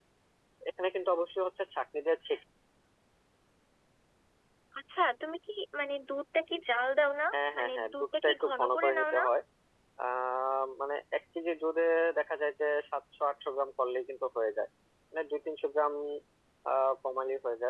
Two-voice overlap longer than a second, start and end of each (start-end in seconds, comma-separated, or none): 7.5-9.2